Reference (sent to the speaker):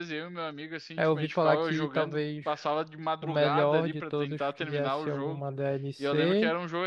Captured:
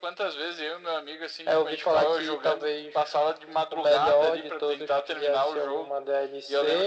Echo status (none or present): present